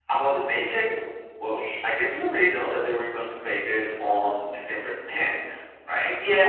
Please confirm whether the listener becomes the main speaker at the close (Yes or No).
Yes